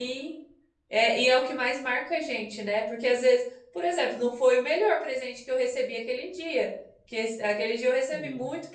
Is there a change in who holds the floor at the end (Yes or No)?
No